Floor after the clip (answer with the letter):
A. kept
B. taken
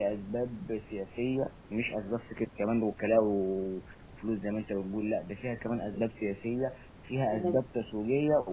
A